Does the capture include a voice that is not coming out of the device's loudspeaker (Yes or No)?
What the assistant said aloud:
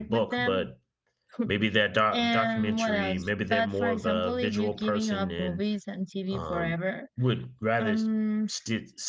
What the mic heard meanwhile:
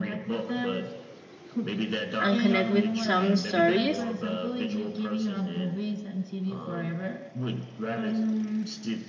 Yes